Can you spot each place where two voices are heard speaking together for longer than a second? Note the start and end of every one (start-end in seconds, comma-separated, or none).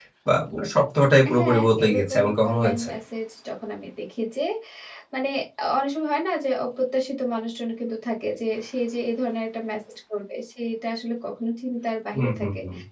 1.4-2.9